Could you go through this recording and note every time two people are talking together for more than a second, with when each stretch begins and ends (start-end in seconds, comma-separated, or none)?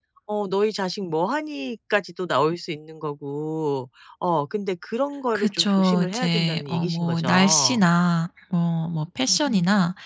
5.4-7.8